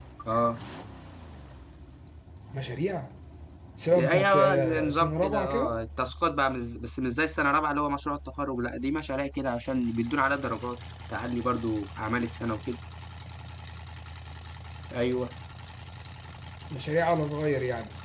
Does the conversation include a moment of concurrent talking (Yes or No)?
Yes